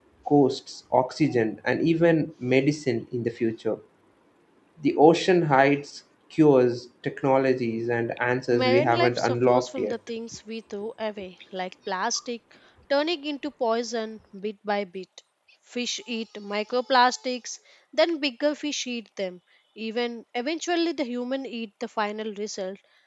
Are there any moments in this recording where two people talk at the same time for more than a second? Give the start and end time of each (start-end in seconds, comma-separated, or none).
8.5-9.9